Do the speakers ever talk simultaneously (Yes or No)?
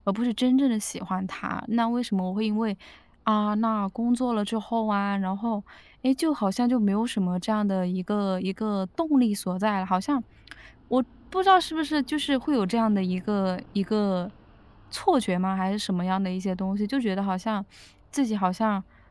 No